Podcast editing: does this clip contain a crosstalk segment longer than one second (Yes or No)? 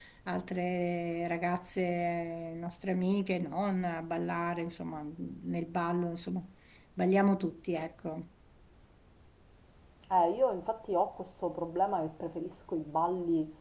No